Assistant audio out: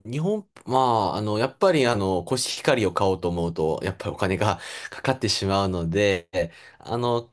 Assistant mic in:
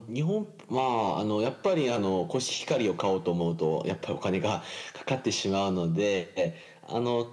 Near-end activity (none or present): none